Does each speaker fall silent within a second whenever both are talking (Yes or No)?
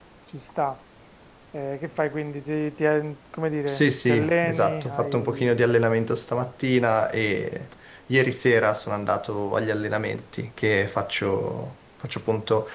No